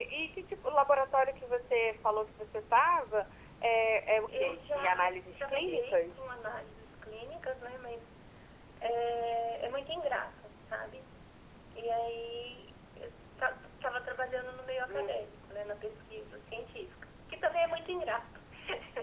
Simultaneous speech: Yes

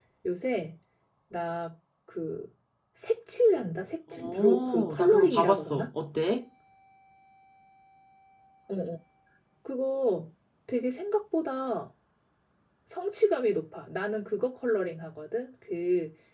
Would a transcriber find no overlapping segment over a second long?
No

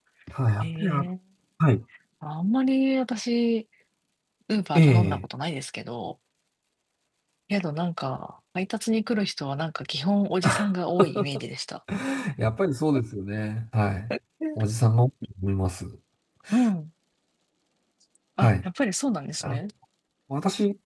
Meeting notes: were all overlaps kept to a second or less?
Yes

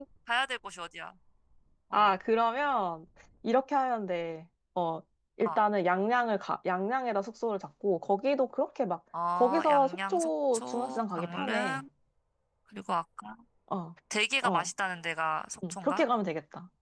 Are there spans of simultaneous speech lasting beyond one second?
Yes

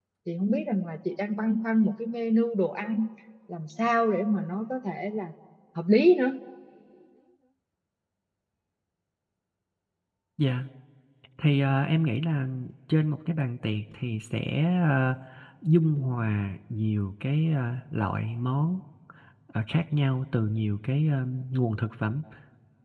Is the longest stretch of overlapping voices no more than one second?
Yes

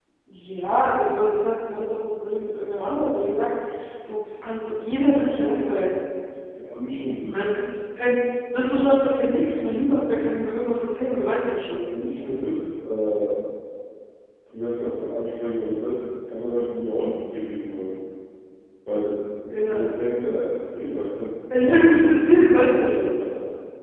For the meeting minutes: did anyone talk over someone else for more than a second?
No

